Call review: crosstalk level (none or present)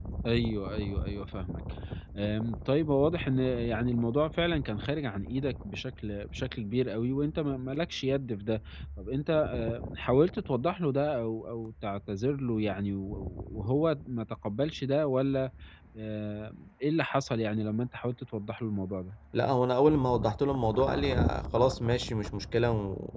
none